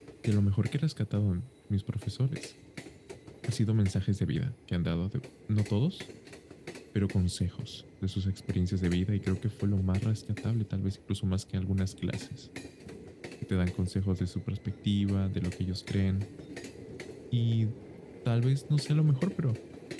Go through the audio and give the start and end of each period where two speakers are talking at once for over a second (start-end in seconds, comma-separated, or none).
none